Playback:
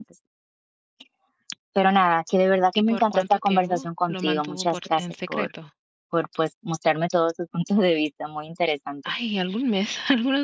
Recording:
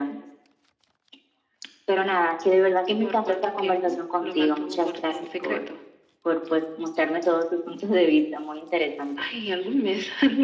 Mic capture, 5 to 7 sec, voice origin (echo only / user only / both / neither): echo only